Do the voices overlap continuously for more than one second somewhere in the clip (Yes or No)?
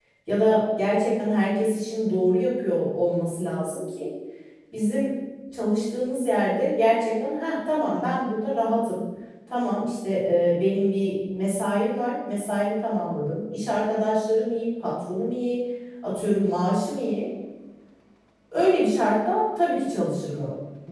No